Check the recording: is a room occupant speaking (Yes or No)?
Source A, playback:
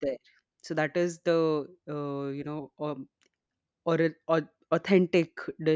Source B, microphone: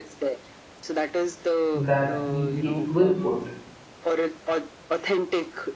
Yes